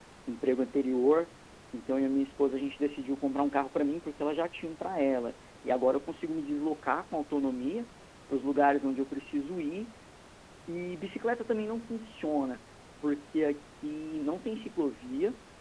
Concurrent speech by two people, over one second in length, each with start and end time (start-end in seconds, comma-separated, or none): none